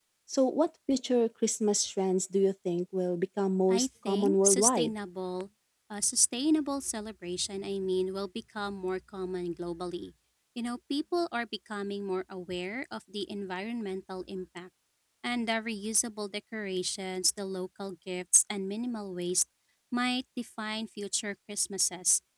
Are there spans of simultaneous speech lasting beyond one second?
Yes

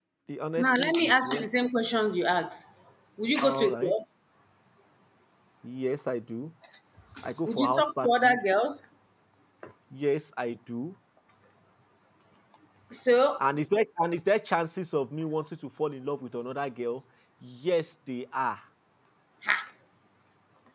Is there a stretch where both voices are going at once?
Yes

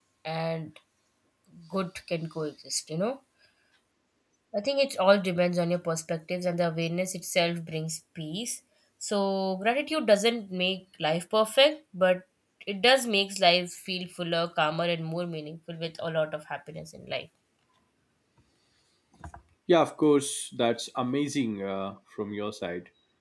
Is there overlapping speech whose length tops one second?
No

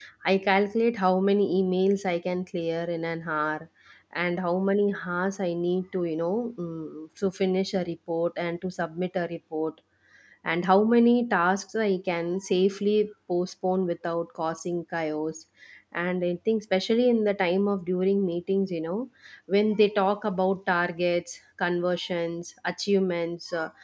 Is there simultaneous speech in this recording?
No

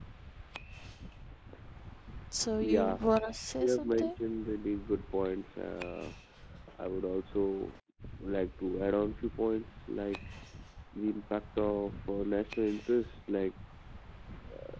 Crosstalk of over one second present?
No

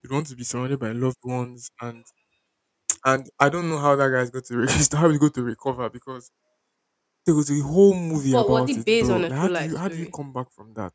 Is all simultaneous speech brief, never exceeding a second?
No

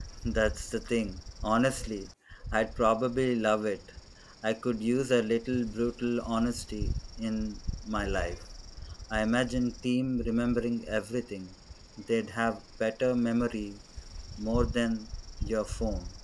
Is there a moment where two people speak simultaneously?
No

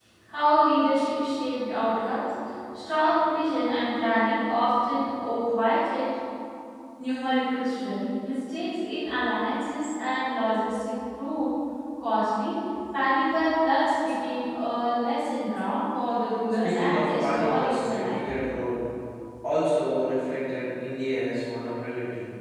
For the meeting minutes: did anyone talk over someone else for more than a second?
Yes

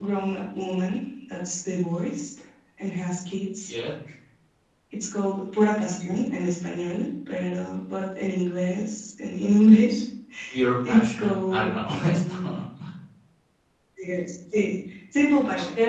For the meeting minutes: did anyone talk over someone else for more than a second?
Yes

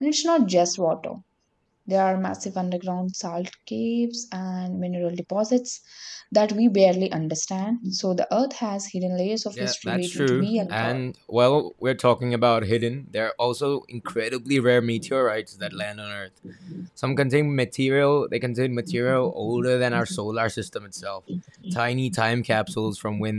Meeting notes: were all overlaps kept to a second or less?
No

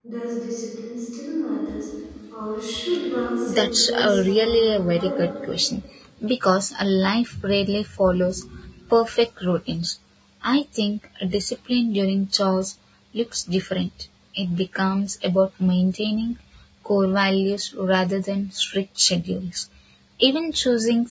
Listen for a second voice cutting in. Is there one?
Yes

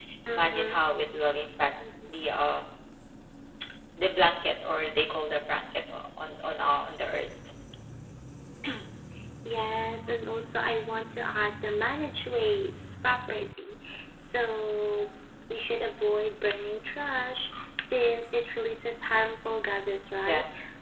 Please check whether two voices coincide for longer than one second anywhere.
No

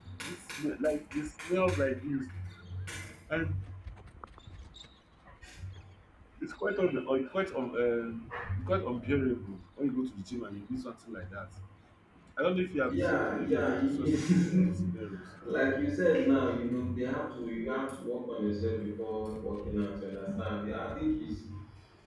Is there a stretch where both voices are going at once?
Yes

